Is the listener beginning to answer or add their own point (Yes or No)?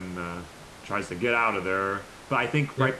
No